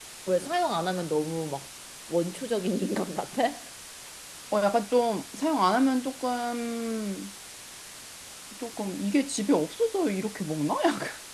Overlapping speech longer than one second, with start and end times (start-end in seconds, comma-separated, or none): none